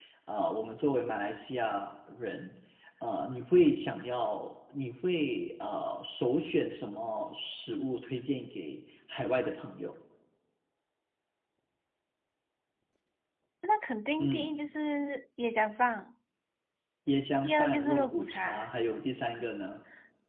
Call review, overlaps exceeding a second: present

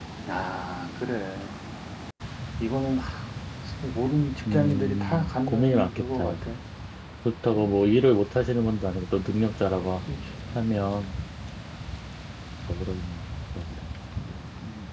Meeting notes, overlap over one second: present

